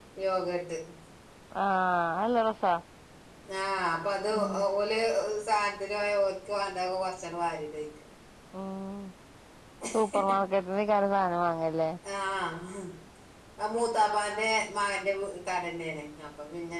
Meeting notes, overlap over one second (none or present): none